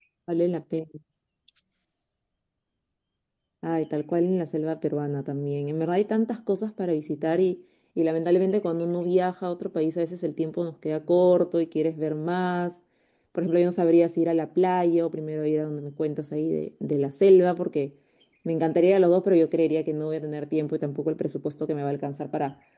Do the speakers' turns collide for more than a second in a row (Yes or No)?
No